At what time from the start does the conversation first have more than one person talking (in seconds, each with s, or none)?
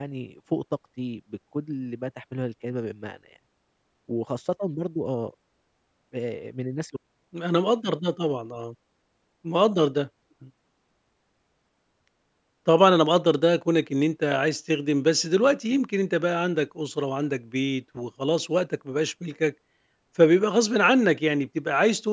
none